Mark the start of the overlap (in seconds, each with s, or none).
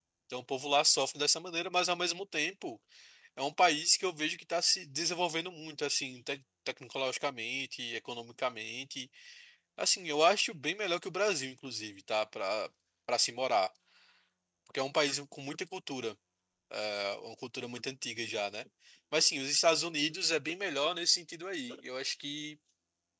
none